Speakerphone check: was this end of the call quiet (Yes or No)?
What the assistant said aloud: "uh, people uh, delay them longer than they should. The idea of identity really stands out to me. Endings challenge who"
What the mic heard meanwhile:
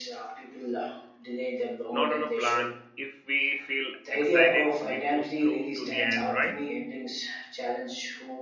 No